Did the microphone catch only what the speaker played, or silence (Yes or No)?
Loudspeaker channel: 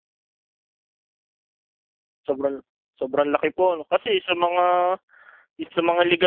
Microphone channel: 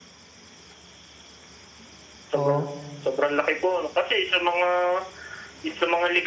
No